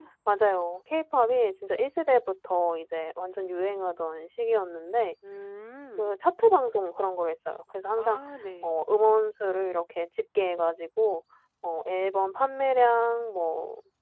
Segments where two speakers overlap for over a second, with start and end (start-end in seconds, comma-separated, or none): none